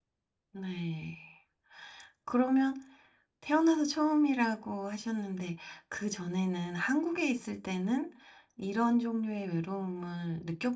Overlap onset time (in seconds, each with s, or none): none